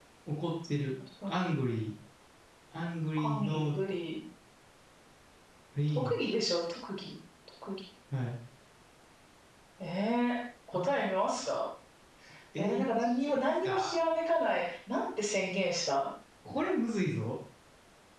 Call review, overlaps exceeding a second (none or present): present